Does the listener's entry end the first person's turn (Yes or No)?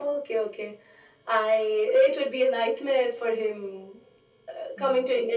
No